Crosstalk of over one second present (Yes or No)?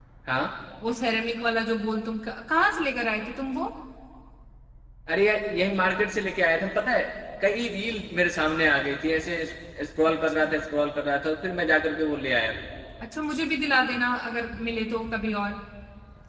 No